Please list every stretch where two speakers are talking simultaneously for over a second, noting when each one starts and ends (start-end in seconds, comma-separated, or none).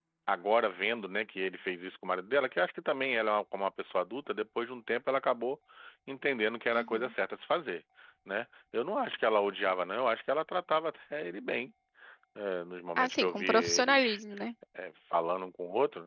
13.0-14.2